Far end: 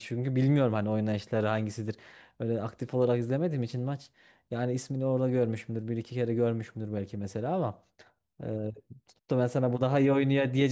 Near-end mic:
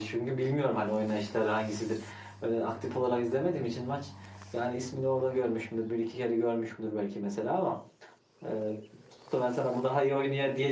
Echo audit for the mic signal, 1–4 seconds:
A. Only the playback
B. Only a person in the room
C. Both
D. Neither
A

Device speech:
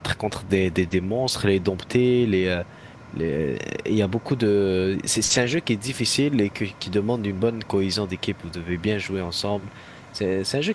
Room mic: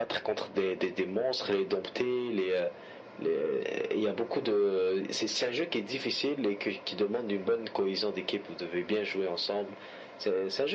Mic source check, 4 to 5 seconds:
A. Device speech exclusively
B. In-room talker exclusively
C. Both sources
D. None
A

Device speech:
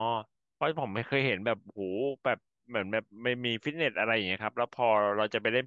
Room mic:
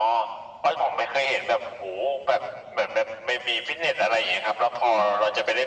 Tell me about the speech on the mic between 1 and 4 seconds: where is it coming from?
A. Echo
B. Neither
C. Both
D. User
A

